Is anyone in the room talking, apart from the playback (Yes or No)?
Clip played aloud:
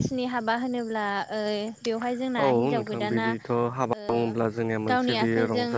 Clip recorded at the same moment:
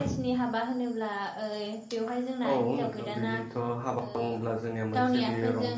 No